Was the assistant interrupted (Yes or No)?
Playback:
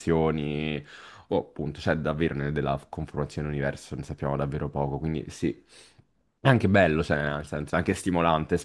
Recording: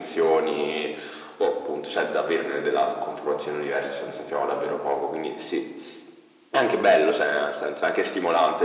No